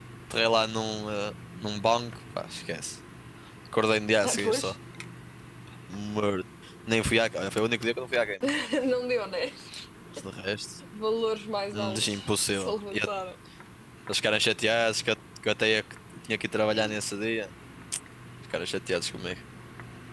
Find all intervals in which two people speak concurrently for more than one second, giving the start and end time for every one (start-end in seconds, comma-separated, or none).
11.7-13.1